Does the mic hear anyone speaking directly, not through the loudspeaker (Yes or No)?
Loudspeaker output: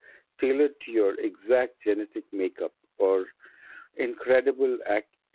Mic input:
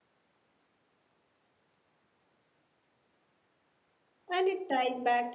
Yes